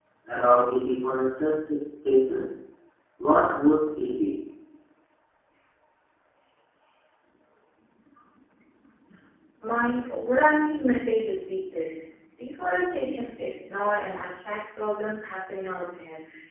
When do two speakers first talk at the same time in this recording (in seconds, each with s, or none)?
none